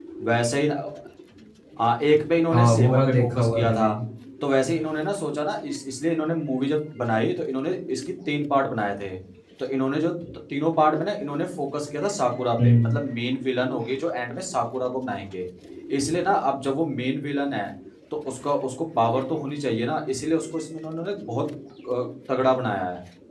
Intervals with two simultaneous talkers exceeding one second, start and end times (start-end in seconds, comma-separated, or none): 2.5-3.9